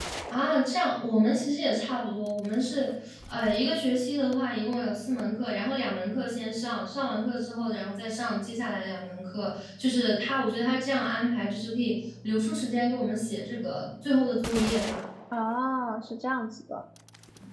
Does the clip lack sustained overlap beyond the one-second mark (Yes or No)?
Yes